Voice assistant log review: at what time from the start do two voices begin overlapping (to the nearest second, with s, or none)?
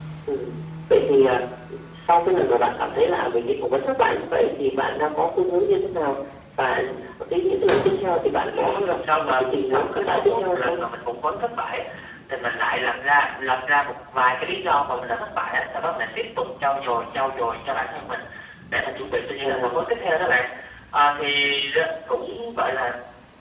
9 s